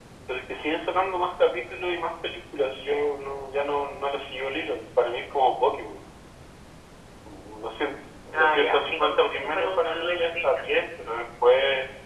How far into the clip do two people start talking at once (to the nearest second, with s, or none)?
8 s